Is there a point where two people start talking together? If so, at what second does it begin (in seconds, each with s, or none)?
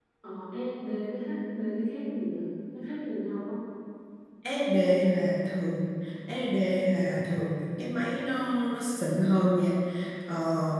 none